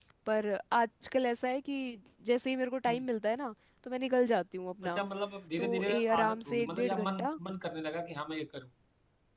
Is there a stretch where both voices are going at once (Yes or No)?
Yes